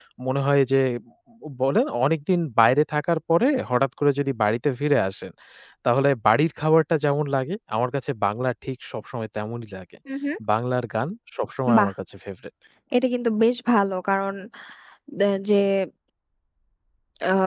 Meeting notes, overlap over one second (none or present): none